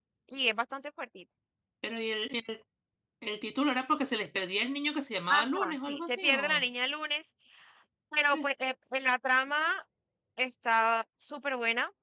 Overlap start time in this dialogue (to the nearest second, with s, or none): 5 s